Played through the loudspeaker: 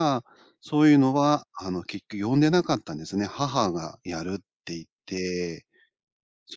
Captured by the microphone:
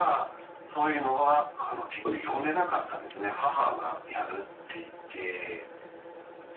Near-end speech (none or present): present